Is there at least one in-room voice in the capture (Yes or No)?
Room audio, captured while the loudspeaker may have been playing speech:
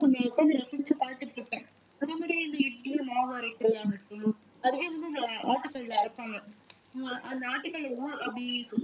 No